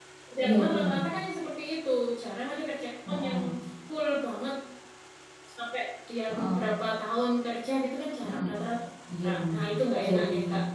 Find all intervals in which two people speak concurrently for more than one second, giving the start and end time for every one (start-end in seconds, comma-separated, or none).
none